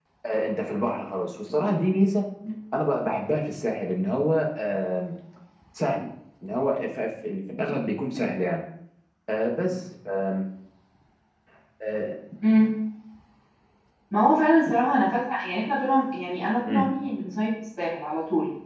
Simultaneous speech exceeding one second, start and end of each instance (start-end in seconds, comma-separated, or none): none